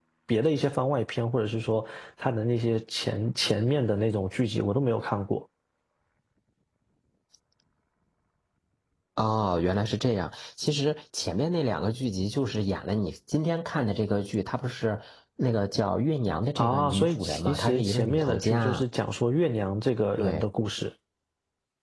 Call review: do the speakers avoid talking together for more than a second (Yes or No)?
No